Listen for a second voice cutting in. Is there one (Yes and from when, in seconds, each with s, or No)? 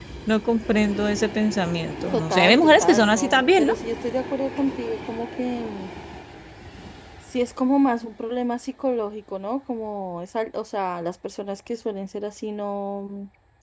Yes, from 2.1 s